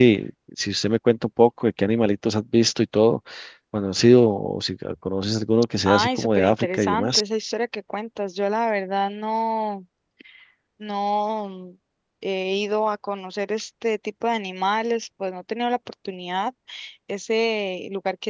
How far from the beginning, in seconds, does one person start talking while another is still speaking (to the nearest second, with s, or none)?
6 s